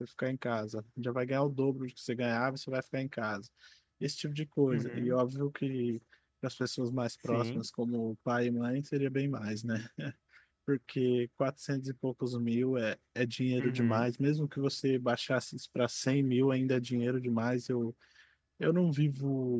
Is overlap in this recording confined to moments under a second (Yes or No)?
Yes